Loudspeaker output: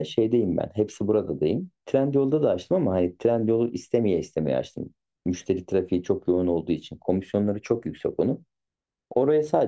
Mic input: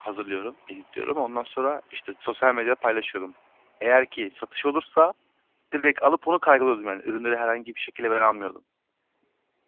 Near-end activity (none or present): present